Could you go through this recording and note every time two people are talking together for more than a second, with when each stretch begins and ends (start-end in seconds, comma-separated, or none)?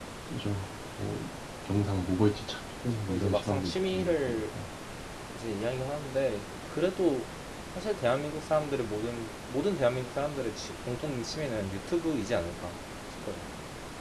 3.0-4.6